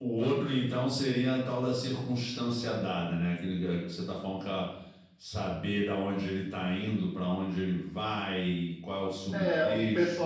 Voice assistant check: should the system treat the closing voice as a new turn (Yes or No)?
Yes